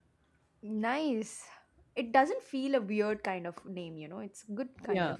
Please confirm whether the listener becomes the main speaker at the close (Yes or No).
Yes